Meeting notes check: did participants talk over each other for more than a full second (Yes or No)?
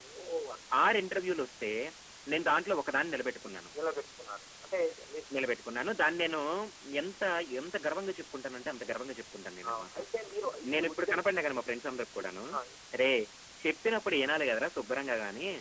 No